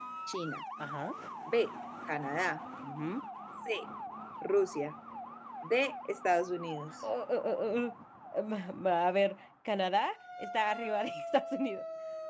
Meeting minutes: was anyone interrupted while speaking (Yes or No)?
No